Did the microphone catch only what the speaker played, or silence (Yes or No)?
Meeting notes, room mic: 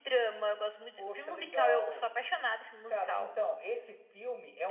Yes